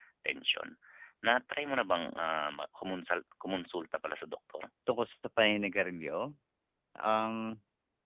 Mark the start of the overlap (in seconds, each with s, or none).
none